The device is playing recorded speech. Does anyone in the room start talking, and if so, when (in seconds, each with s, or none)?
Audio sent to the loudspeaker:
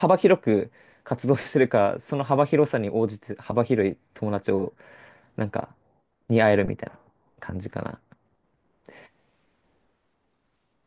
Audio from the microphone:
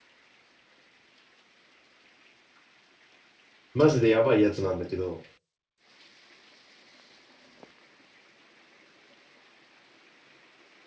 3.7 s